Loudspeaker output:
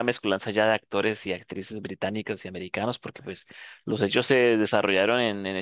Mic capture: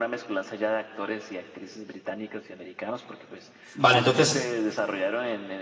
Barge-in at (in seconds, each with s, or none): 3.8 s